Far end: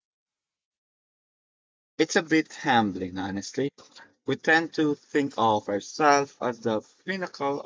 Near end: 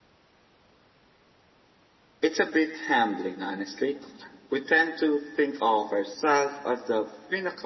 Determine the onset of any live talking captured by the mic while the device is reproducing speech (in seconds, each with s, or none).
none